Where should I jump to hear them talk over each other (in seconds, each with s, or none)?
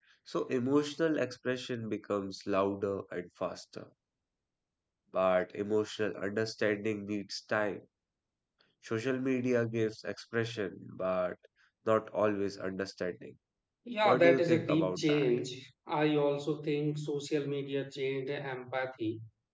14.1 s